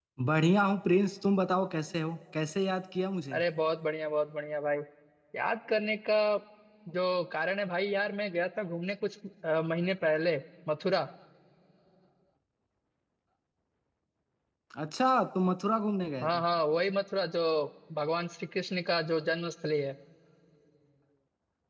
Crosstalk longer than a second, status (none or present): none